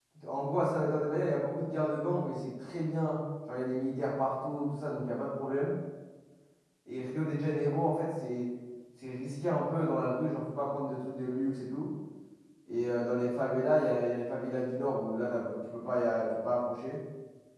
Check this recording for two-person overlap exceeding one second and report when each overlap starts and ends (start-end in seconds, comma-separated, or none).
none